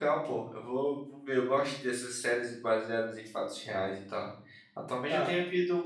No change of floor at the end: Yes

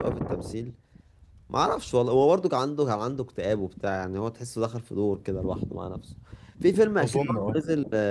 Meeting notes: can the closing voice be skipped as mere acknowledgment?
Yes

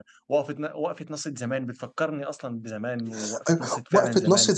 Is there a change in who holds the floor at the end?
Yes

